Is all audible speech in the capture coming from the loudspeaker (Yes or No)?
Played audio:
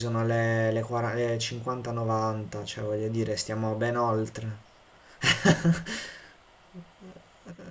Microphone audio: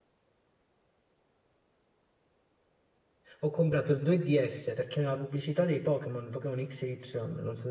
No